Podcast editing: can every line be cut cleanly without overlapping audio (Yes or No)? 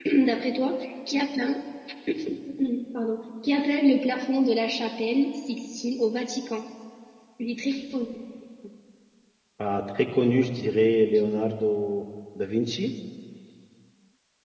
Yes